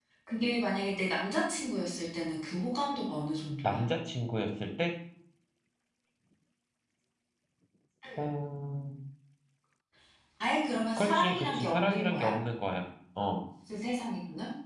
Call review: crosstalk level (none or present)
present